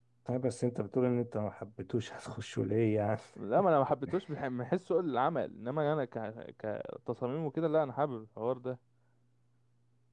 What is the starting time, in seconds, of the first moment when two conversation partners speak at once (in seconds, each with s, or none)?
none